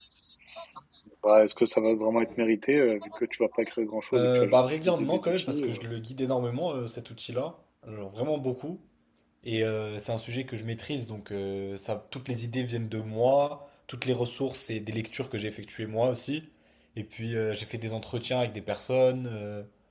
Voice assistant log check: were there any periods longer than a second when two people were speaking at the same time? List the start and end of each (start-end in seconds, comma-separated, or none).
4.1-5.8